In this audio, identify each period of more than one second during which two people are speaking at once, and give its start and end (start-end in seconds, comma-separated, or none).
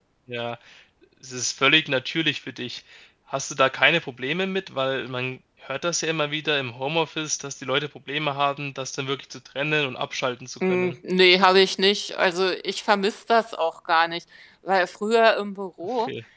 none